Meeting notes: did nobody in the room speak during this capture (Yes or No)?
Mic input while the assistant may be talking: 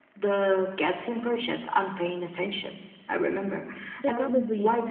No